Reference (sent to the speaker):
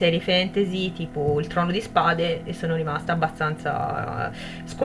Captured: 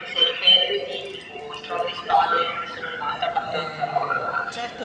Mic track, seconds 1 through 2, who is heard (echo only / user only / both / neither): echo only